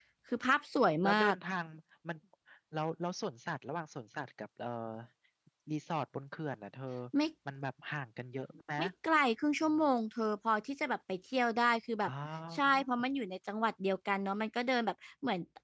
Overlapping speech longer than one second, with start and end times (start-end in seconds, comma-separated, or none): none